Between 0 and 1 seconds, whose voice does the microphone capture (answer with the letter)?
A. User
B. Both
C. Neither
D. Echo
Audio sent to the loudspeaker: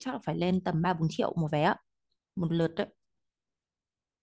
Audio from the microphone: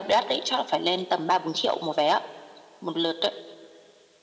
D